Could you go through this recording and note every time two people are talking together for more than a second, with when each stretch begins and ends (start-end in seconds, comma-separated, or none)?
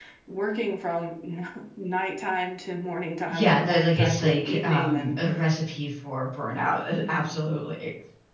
3.3-5.2